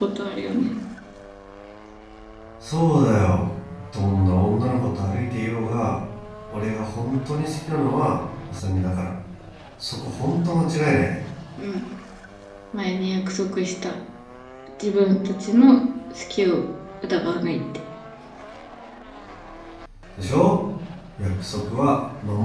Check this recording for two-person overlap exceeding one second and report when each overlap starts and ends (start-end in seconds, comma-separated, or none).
none